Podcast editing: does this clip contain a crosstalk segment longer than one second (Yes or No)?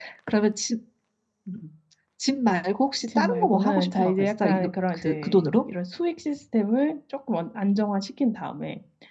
Yes